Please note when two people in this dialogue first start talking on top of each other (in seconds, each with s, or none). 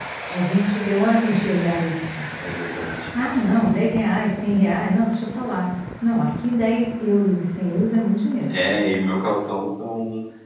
none